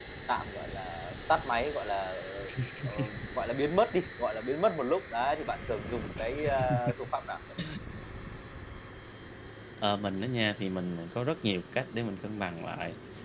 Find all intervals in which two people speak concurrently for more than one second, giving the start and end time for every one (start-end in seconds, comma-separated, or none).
none